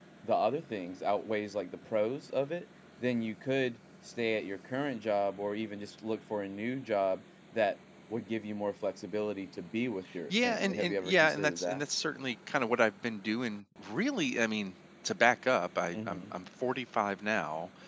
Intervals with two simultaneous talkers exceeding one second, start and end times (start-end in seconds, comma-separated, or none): 10.4-11.8